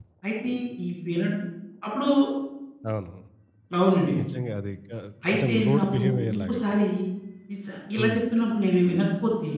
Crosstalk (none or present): present